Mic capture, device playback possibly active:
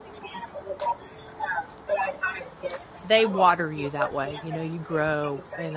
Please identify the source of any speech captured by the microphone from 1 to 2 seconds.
echo only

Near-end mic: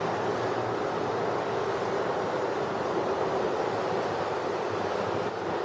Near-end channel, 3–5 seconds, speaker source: neither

